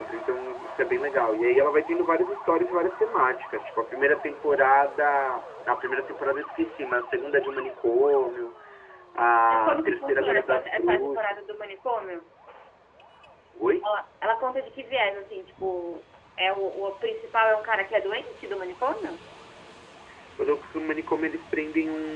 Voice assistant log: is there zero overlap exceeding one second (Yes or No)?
No